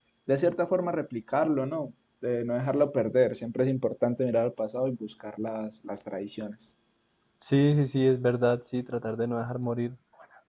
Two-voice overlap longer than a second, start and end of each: none

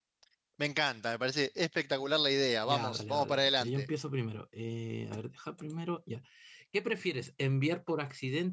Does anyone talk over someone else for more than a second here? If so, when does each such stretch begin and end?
2.7-3.9

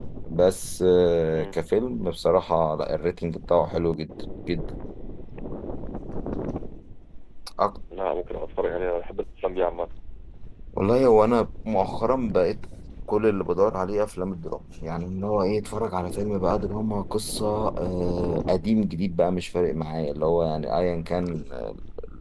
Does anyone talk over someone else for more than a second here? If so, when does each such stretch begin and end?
none

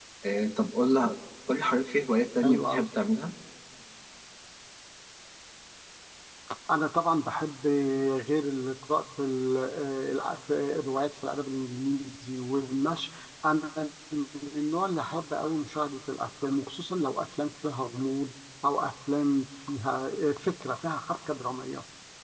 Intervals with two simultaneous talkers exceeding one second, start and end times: none

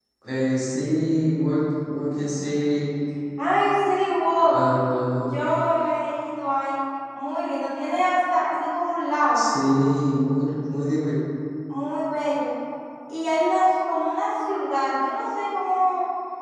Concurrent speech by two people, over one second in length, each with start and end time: none

